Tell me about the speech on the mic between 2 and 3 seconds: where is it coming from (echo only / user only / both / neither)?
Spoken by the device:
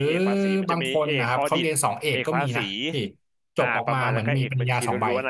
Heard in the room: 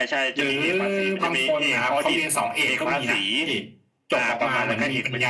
echo only